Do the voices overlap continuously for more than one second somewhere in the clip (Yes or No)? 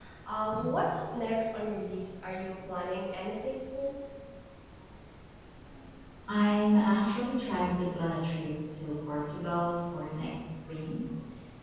No